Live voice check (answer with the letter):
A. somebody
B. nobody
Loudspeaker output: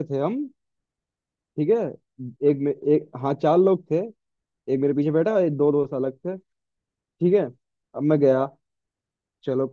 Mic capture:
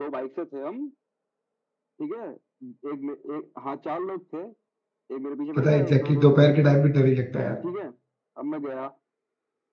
A